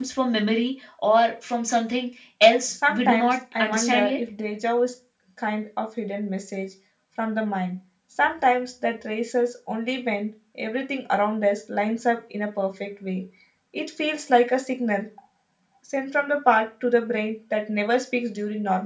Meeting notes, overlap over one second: present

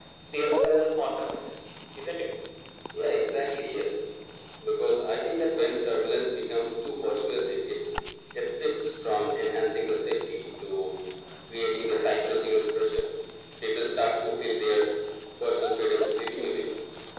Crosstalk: none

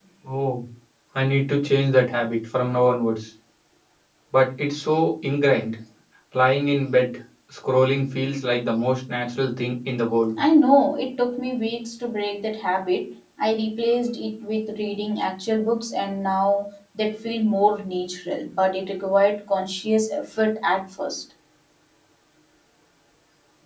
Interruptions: none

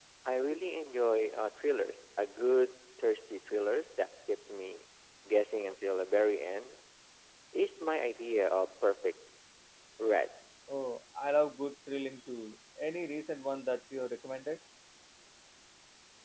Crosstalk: none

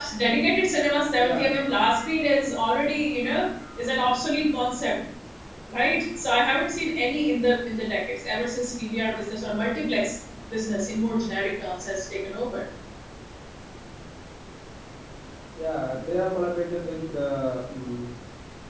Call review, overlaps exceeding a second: none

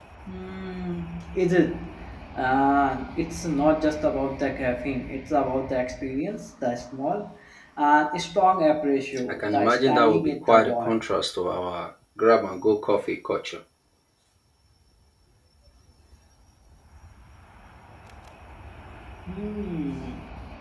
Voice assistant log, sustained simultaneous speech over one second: present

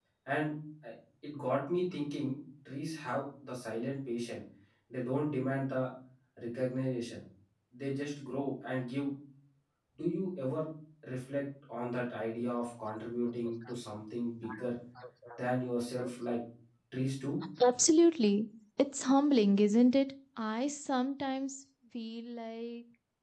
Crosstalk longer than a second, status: none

